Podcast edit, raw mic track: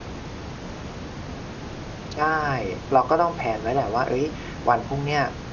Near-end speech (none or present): present